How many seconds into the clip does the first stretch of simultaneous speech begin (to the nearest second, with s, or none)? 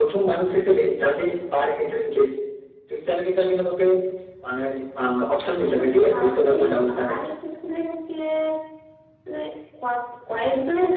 6 s